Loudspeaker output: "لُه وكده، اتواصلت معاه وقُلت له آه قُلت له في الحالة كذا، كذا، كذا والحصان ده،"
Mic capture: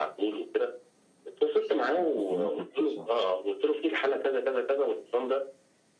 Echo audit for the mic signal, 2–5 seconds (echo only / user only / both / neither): both